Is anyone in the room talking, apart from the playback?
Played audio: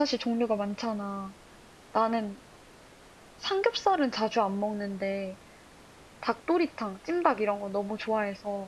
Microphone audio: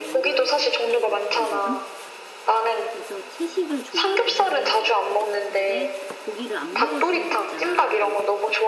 Yes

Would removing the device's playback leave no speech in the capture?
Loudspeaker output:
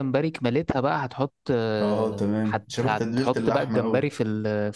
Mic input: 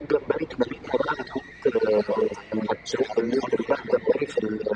Yes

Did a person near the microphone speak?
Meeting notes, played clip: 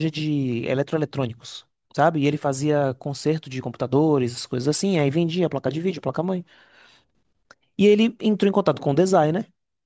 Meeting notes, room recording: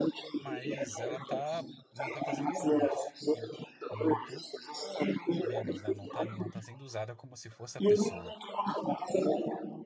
Yes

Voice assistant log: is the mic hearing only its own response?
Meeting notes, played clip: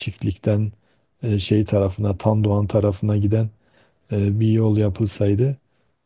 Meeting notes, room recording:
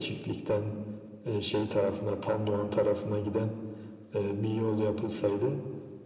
Yes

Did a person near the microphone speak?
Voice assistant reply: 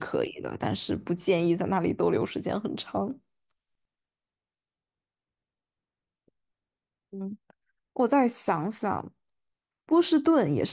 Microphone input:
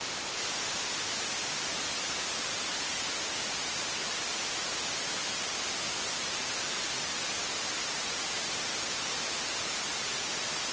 No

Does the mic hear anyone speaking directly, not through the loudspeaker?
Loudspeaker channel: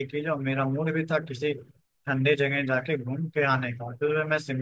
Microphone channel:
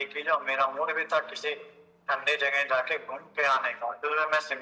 No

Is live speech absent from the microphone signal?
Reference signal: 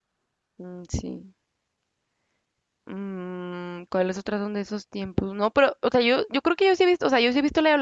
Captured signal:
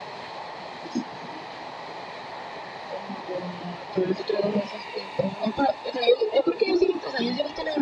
Yes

